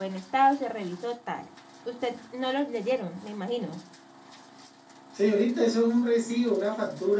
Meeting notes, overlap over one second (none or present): none